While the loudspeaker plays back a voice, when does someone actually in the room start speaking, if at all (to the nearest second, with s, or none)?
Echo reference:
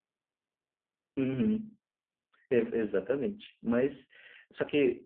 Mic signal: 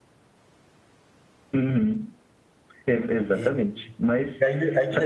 3 s